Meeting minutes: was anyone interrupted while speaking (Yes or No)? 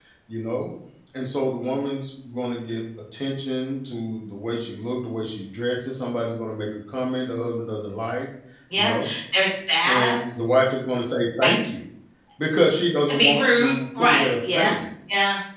Yes